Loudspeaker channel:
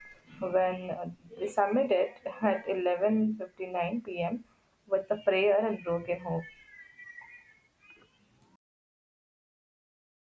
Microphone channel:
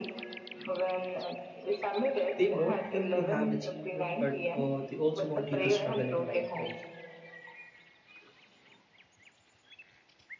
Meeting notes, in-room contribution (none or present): present